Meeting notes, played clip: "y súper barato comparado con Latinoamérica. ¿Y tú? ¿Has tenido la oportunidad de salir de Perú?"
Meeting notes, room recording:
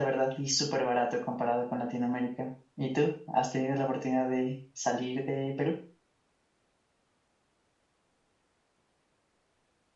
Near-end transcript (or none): none